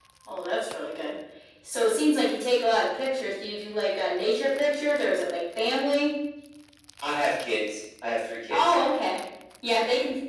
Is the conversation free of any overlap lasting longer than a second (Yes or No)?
Yes